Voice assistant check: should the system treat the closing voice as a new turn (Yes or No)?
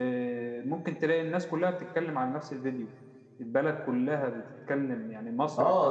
Yes